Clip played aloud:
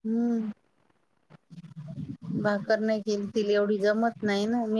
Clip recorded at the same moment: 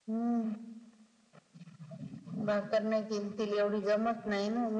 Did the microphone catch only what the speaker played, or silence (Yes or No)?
Yes